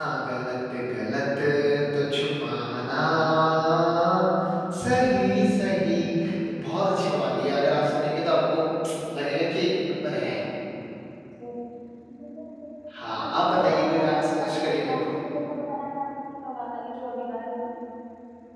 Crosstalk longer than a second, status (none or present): present